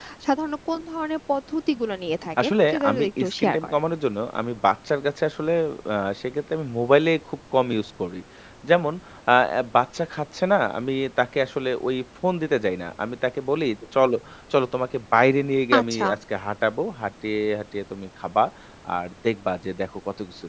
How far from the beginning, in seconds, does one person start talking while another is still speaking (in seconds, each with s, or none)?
2.4 s